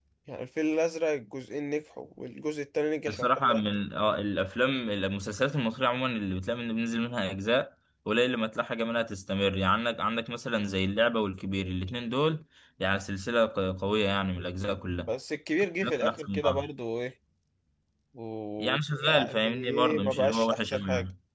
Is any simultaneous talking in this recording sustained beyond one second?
Yes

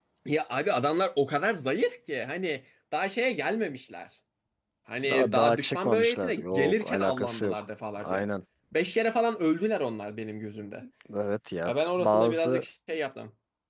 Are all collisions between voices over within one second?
No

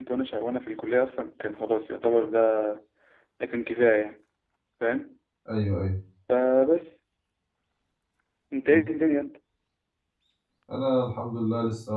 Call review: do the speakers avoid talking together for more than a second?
Yes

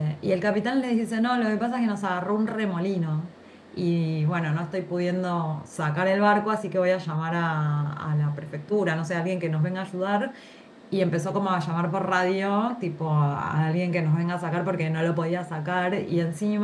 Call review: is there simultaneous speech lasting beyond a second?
No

